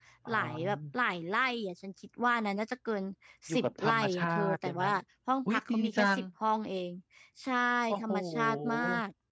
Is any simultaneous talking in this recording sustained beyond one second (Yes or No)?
Yes